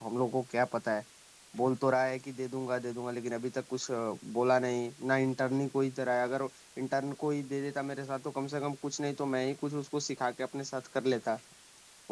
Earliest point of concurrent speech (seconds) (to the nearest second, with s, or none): none